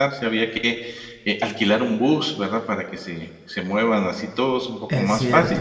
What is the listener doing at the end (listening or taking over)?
listening